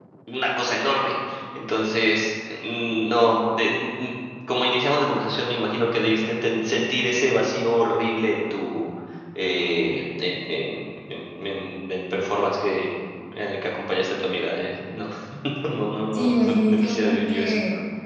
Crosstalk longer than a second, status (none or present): present